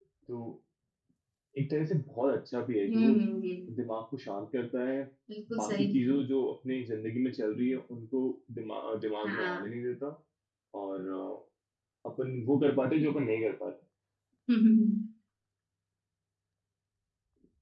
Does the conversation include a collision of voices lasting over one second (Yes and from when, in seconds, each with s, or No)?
No